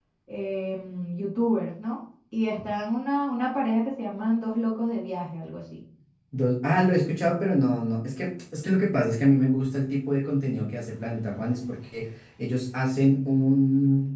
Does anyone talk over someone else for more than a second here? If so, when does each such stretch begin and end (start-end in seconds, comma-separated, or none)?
none